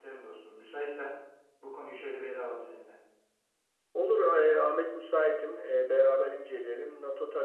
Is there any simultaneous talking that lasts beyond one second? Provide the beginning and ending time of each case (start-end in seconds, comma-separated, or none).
none